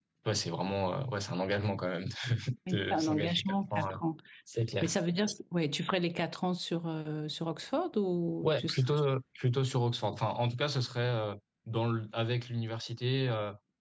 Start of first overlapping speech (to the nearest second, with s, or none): 3 s